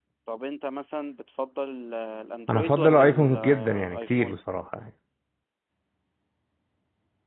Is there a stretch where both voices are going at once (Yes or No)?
Yes